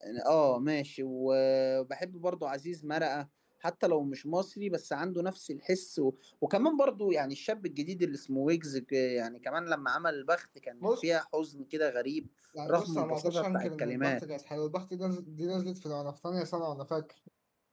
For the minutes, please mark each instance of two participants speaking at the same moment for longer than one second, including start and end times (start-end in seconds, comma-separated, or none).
12.7-14.2